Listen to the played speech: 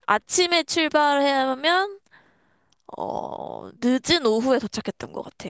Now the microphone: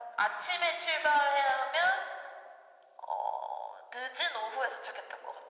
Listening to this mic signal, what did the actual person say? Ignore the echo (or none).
none